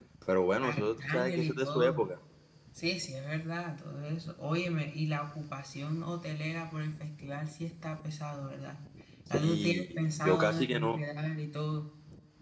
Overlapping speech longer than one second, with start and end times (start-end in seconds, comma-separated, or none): 0.6-2.1, 9.3-11.0